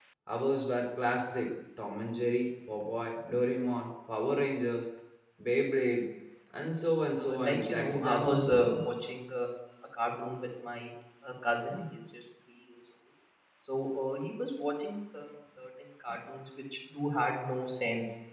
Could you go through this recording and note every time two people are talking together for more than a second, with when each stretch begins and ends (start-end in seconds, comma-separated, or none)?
7.2-8.7